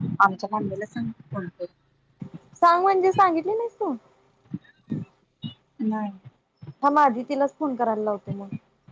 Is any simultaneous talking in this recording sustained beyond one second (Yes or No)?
No